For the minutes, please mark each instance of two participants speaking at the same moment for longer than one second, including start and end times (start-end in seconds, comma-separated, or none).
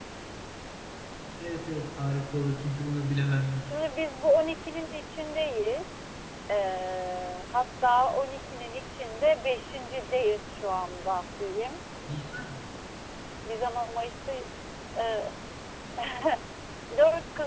none